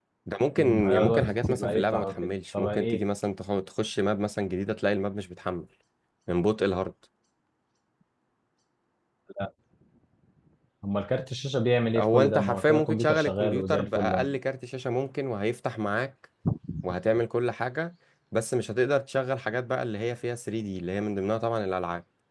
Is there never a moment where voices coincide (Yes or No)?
No